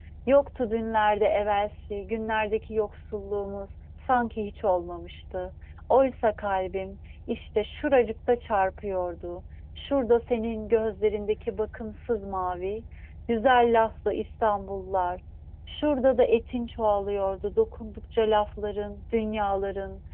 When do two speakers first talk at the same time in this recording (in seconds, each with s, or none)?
none